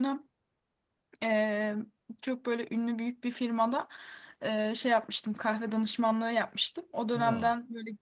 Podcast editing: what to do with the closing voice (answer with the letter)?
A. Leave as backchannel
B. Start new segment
A